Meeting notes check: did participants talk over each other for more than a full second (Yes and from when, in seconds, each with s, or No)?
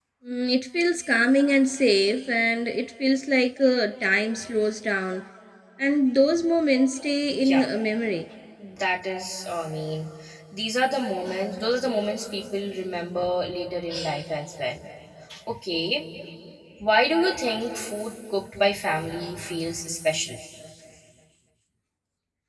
No